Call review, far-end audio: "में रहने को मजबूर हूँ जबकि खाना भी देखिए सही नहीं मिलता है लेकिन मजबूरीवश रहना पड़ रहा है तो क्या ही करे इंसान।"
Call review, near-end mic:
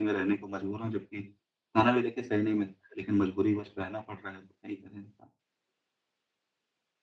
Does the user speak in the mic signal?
No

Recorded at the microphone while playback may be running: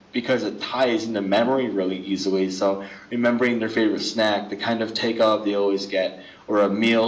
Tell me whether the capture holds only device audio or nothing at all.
Yes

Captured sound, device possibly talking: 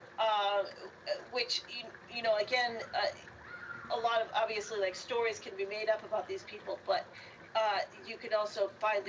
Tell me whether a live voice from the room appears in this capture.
No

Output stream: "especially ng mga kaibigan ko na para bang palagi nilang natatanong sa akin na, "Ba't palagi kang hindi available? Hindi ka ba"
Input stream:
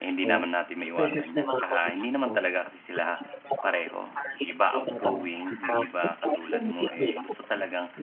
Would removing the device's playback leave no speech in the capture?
No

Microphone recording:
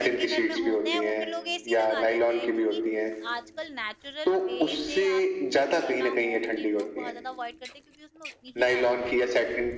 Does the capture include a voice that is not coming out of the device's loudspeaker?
Yes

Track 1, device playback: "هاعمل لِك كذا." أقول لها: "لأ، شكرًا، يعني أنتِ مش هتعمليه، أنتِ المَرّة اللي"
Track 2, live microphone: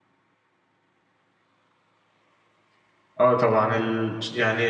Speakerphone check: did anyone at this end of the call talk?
Yes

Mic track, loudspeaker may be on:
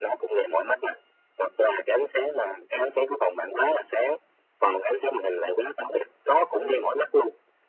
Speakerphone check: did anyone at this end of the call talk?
Yes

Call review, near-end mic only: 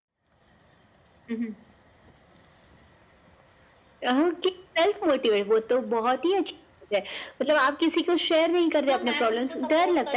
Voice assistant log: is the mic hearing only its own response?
No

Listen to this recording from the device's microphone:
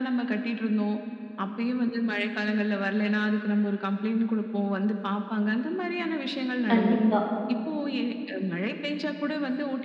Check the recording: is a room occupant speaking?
Yes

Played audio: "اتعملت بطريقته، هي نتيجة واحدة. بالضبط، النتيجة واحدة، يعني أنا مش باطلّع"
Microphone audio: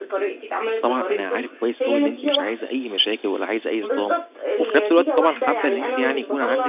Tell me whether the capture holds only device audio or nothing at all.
No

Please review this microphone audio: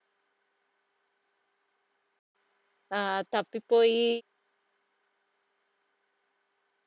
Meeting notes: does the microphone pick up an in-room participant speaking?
Yes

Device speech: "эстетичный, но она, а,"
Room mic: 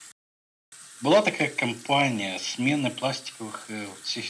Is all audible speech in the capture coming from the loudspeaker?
No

